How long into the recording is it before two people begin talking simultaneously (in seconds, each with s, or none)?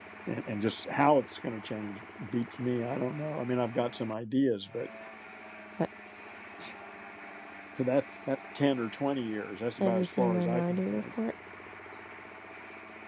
9.8 s